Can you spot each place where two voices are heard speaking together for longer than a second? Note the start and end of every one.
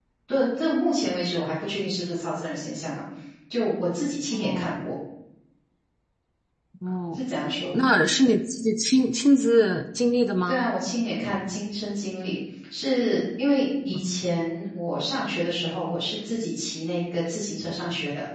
none

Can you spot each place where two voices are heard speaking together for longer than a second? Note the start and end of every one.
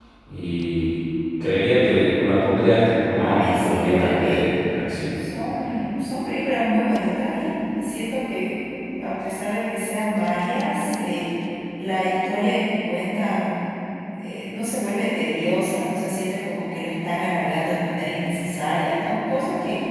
3.1-4.4

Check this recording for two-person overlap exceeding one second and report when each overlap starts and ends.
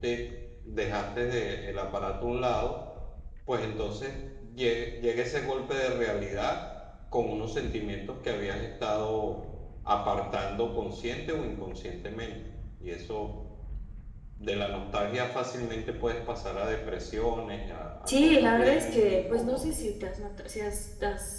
18.1-19.6

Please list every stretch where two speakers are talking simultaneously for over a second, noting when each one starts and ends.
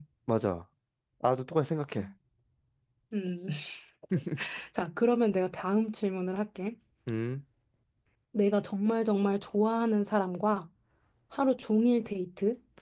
none

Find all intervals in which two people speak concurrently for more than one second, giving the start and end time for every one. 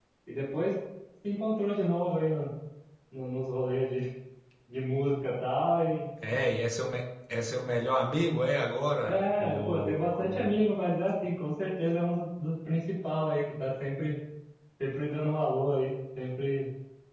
9.1-10.7

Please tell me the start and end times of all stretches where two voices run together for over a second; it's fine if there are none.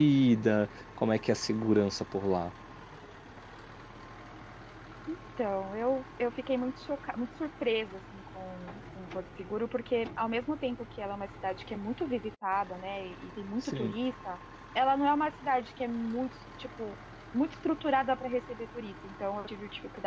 none

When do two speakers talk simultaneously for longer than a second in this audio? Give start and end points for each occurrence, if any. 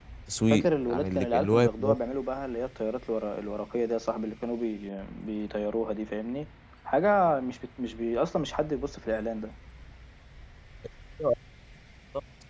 0.5-1.9

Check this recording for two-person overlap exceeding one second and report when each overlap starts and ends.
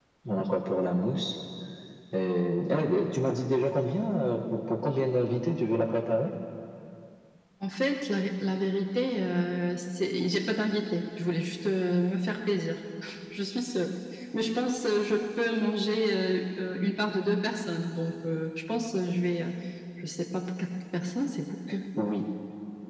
none

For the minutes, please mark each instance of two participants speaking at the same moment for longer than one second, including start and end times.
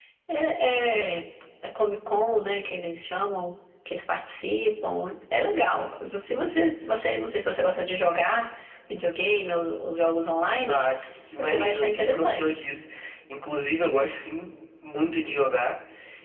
11.4-12.6

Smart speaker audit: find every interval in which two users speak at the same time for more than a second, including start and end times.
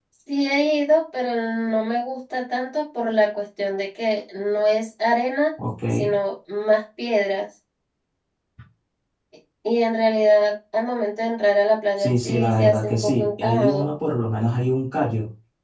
12.0-13.9

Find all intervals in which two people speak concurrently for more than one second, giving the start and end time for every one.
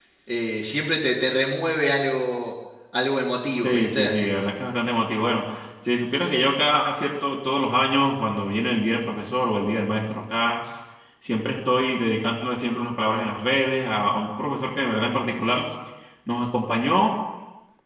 none

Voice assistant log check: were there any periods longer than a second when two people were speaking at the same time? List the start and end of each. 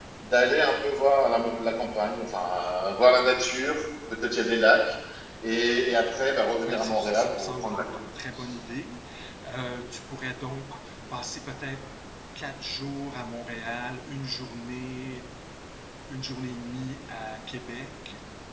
6.6-8.0

